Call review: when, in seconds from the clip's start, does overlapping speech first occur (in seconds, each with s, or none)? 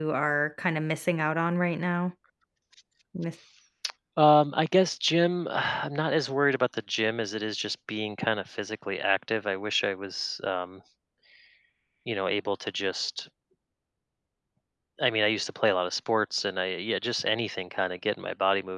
none